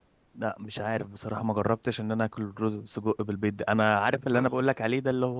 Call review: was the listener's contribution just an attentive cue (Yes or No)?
Yes